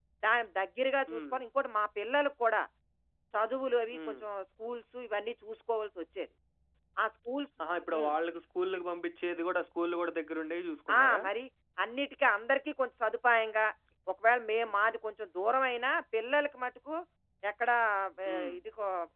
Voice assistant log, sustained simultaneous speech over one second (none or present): none